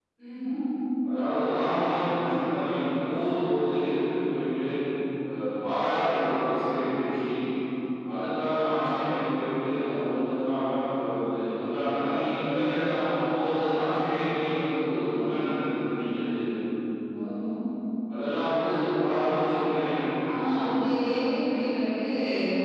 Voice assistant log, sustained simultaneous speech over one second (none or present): none